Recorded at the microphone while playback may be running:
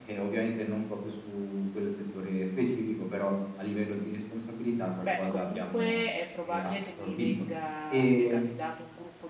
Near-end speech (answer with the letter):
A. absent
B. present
B